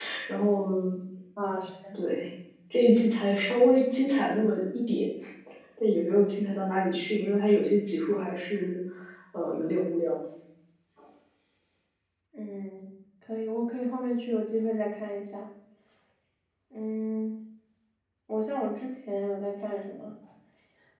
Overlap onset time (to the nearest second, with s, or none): none